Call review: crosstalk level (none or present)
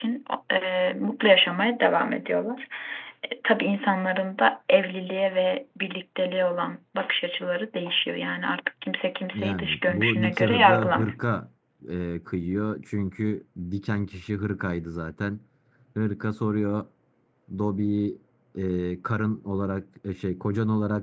present